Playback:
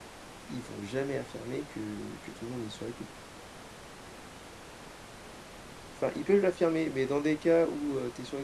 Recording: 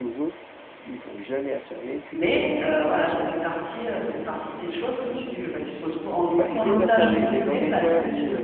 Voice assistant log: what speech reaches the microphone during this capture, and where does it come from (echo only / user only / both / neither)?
both